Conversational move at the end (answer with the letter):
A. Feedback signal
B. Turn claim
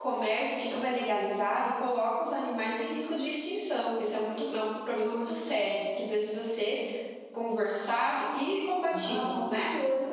B